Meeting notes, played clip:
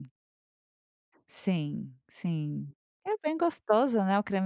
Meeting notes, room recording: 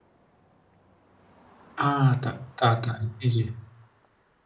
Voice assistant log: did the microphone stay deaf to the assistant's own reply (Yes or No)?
Yes